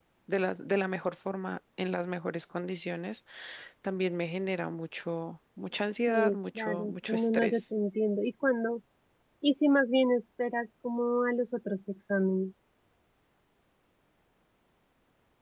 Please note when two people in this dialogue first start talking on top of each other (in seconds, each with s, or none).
6.1 s